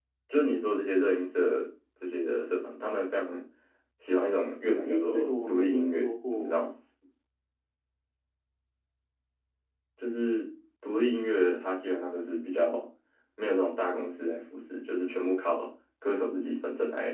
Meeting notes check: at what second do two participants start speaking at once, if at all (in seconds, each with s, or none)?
4.8 s